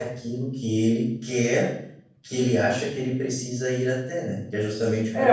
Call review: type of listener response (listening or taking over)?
taking over